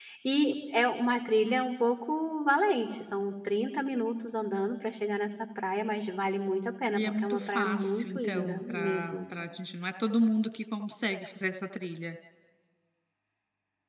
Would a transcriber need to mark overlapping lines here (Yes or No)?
Yes